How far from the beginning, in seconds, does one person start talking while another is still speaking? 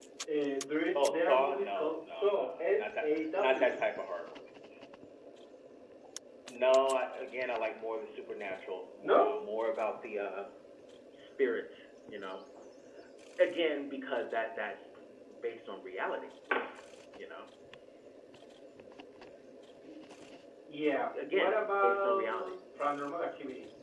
1 s

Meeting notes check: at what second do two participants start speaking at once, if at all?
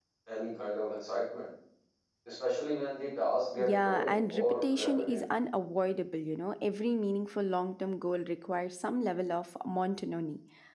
4 s

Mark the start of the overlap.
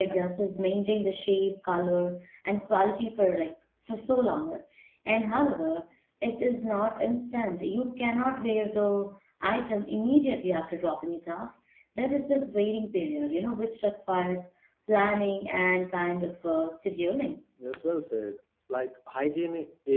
none

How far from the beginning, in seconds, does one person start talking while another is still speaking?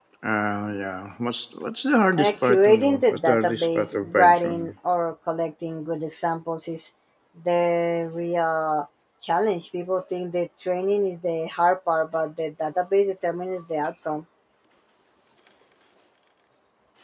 2 s

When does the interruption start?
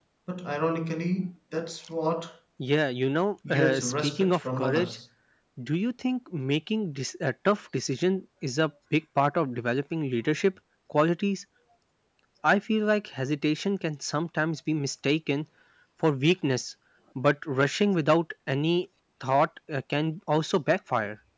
4 s

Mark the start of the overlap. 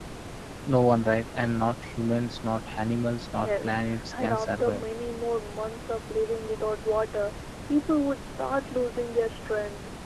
3 s

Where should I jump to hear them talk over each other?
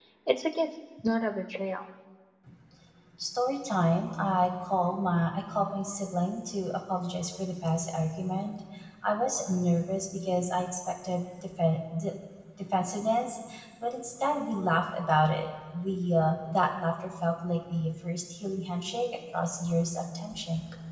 none

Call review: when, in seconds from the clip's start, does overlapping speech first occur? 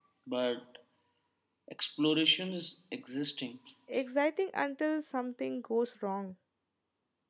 none

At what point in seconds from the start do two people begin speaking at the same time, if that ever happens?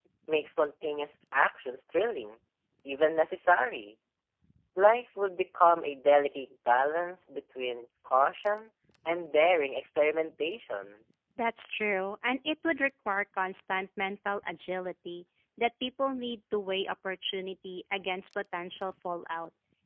none

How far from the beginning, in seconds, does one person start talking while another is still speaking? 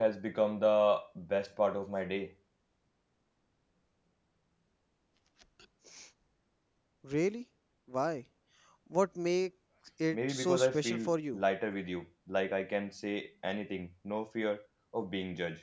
10 s

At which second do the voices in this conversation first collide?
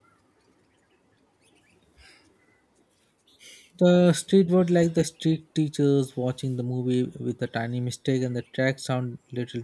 none

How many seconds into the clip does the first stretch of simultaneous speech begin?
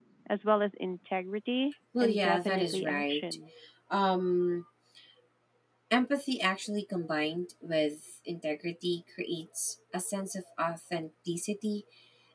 2 s

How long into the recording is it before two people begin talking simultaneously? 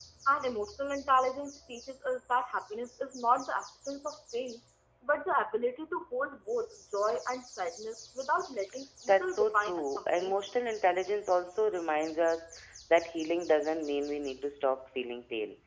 9 s

